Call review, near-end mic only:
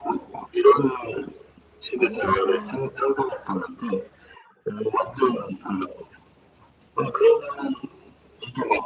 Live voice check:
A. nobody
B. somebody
B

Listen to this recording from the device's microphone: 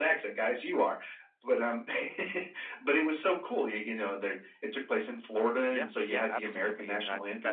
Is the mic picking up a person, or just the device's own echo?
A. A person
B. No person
A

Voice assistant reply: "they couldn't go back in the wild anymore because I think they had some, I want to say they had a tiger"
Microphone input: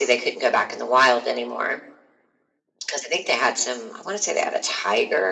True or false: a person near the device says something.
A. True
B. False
B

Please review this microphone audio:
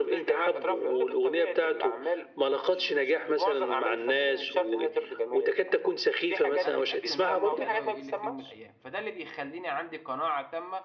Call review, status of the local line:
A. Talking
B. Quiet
A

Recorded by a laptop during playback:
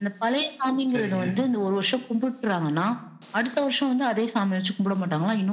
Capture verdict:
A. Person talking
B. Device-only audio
A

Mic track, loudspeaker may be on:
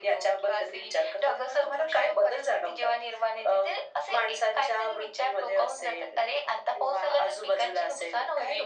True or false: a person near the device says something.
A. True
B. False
B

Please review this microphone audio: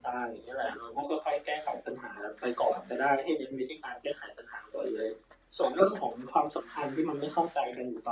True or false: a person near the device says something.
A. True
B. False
B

